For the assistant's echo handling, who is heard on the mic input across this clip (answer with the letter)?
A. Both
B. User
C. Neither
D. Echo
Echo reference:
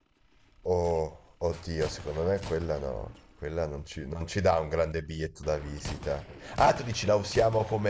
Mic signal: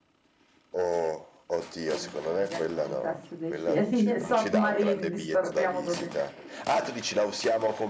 A